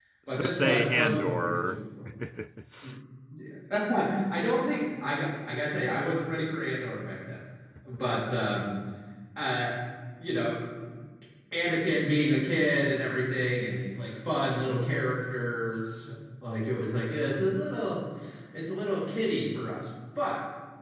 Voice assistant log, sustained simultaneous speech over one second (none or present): present